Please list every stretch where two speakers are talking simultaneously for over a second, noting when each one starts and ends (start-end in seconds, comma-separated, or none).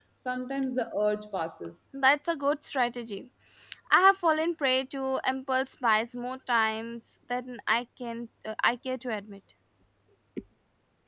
none